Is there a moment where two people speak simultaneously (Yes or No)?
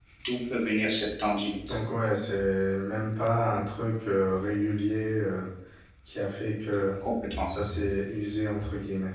No